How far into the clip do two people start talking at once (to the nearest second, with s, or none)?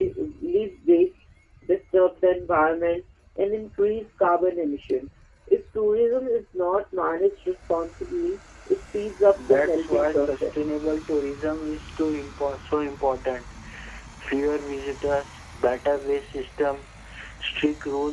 9 s